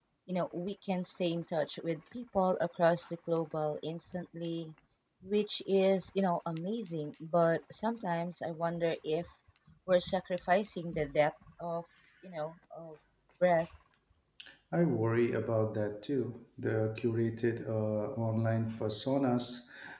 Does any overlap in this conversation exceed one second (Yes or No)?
No